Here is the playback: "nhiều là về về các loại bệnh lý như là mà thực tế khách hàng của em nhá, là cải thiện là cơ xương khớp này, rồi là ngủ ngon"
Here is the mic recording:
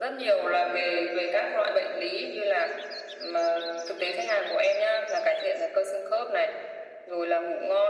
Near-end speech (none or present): none